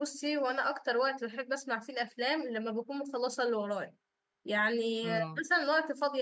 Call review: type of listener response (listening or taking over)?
listening